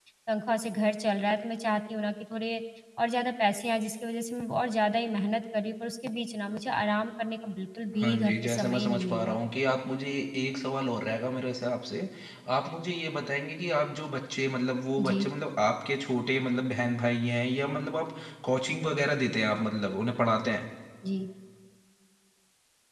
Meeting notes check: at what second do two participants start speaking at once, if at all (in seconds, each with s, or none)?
8.0 s